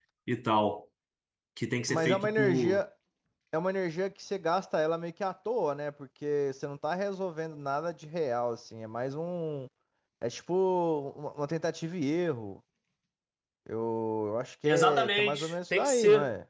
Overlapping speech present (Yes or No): Yes